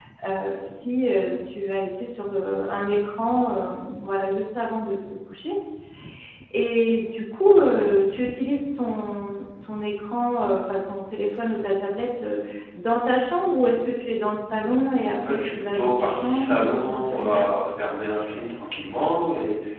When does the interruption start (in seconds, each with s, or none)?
15.2 s